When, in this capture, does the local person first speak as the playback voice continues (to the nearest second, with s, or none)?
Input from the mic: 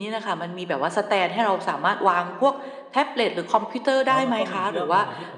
4 s